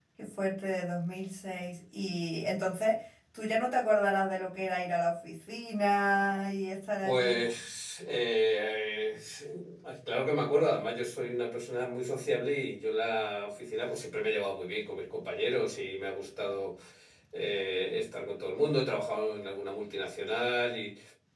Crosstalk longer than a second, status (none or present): none